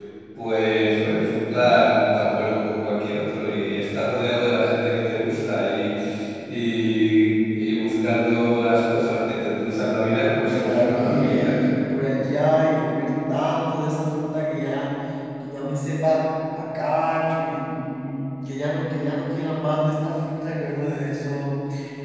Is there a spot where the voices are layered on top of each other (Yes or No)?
Yes